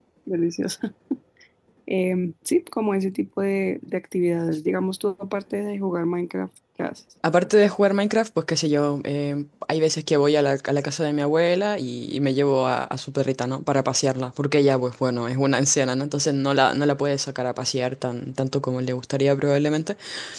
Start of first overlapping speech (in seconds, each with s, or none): none